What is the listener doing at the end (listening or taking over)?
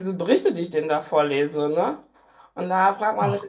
listening